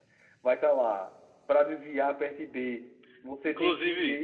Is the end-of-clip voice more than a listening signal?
No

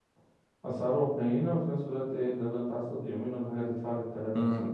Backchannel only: No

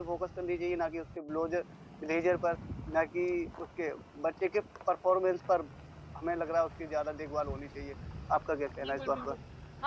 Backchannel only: No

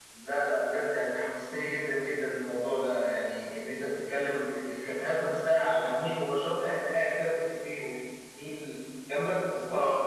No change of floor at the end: No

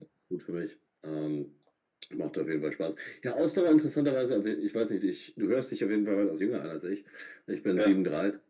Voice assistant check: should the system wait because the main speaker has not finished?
Yes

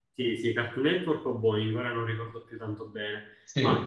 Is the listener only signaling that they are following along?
Yes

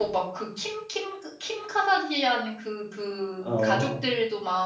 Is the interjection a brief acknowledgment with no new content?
Yes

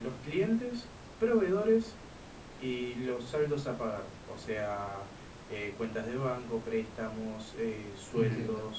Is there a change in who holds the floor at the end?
Yes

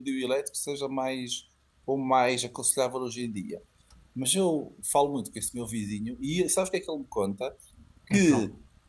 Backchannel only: Yes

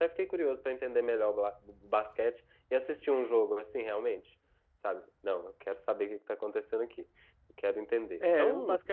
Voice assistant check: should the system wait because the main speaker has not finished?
No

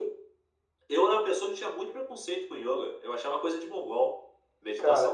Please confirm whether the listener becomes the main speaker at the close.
Yes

